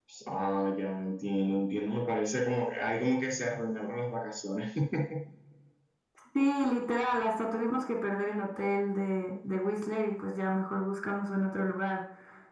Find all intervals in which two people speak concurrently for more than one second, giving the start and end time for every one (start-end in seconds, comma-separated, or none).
none